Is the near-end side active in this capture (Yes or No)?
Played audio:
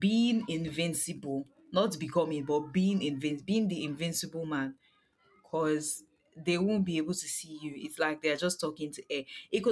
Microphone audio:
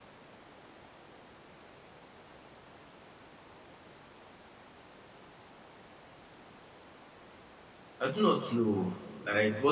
Yes